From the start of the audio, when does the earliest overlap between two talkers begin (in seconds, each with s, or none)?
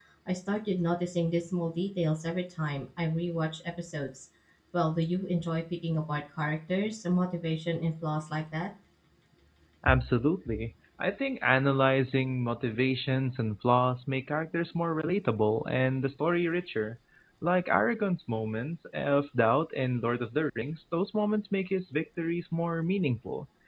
none